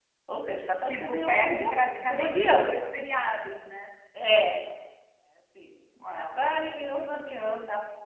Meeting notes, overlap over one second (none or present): present